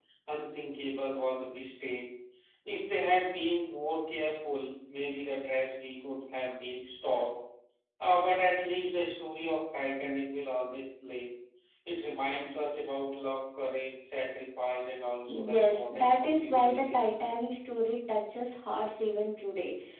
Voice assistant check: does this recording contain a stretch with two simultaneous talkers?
Yes, from 15.3 s

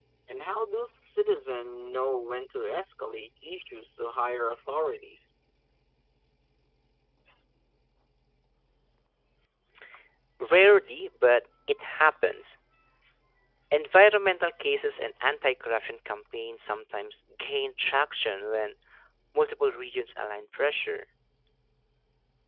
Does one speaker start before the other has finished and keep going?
No

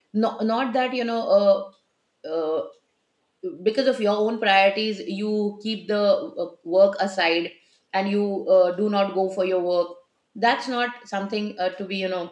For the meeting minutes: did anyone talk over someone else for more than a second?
No

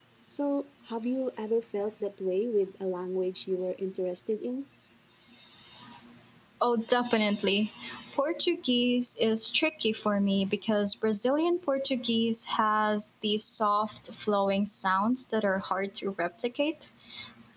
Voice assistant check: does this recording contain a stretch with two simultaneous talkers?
No

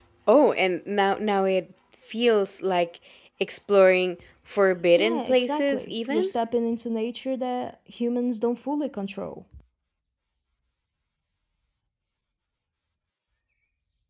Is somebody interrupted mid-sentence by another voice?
Yes, from 5.0 s

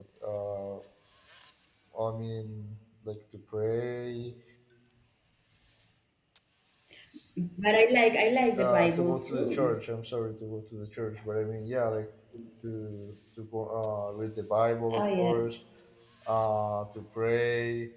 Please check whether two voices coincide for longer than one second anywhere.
Yes, from 8.6 s

